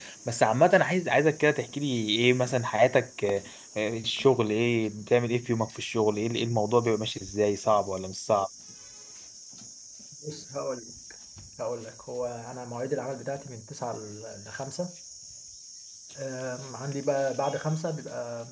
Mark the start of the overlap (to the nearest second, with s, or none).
none